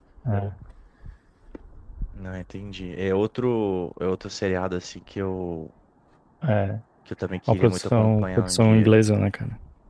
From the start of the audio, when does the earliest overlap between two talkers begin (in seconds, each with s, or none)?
7.5 s